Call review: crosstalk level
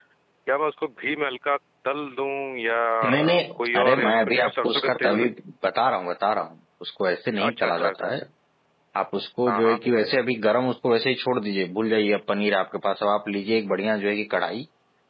present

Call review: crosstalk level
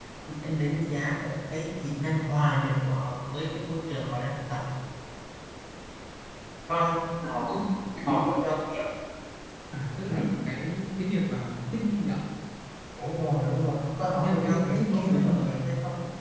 present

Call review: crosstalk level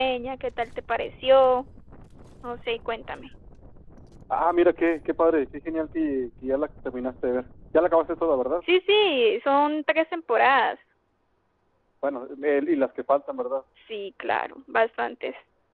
none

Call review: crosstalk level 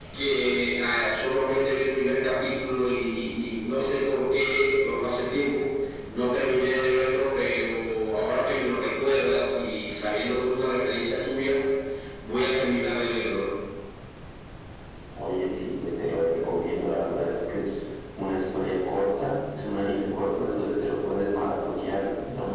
none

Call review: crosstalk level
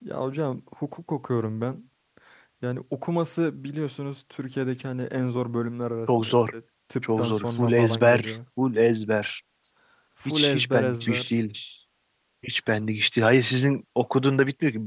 present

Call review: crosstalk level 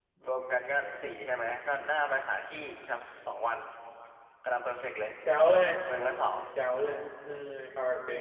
none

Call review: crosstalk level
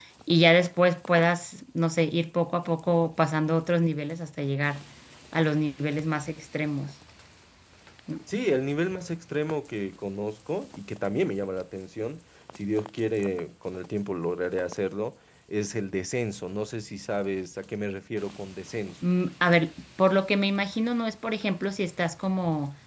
none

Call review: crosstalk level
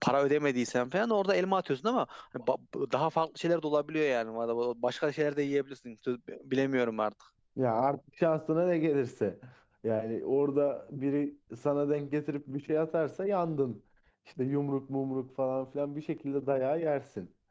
none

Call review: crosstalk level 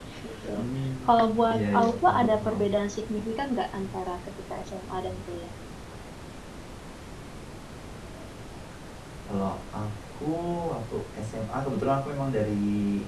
present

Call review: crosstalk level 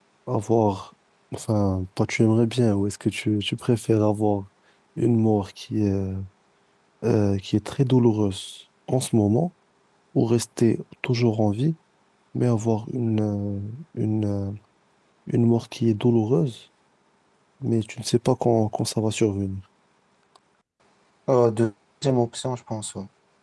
none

